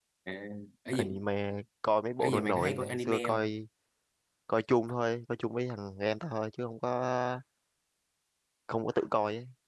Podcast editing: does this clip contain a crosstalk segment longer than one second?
Yes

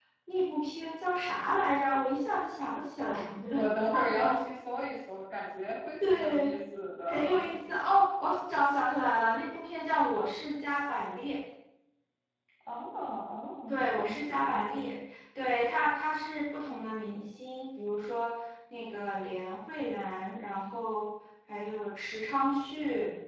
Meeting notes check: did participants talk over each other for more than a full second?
Yes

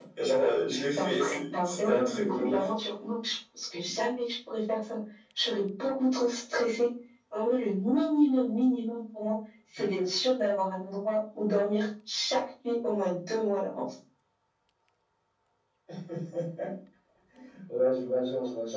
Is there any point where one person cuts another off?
Yes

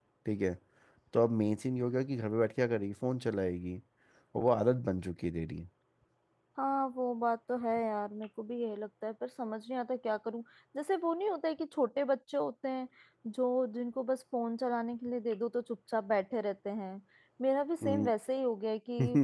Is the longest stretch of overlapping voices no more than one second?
Yes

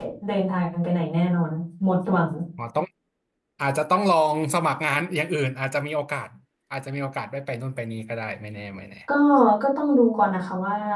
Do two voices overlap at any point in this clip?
No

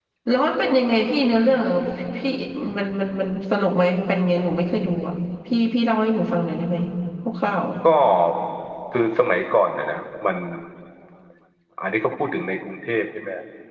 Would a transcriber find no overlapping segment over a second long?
Yes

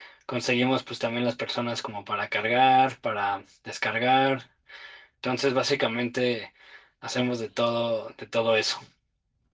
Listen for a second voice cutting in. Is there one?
No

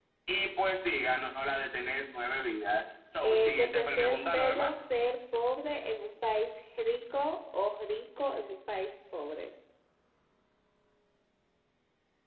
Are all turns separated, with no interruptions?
No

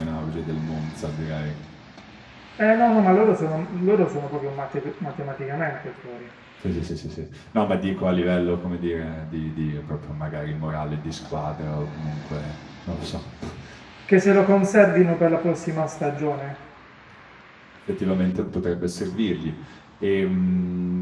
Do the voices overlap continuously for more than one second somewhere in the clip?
No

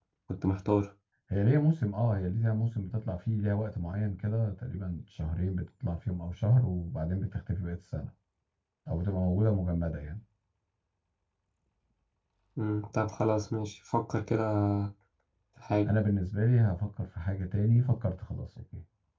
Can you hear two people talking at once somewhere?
No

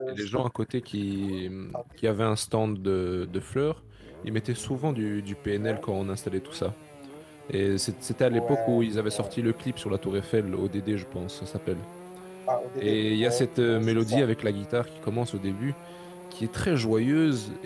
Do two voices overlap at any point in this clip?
Yes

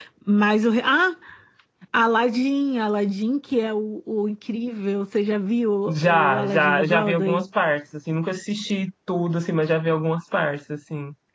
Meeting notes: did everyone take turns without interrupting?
No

